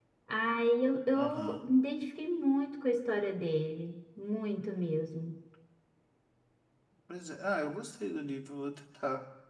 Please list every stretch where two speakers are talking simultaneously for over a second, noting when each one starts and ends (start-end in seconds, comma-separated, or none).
none